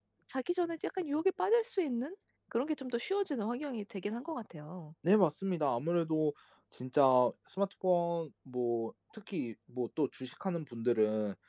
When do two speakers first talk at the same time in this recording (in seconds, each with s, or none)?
none